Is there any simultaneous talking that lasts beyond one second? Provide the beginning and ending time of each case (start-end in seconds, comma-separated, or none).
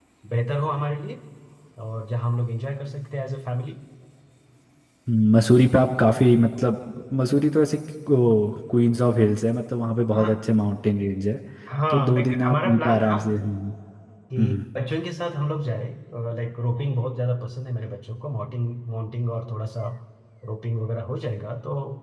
11.9-13.2